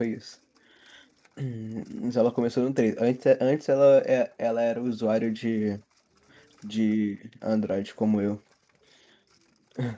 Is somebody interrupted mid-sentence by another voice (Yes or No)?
No